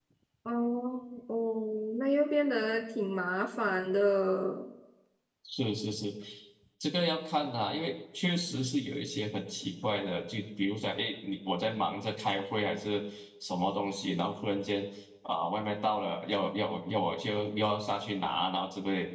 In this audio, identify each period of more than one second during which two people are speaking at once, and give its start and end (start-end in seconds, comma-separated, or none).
none